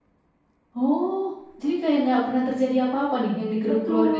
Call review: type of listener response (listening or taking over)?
taking over